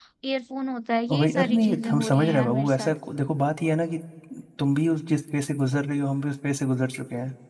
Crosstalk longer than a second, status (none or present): present